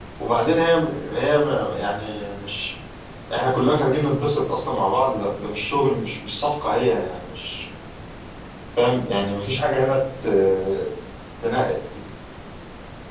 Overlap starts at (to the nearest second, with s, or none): none